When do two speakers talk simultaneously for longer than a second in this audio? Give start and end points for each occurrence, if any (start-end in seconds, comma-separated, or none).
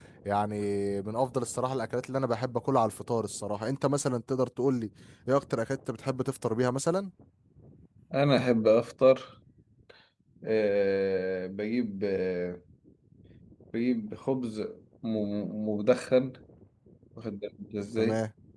none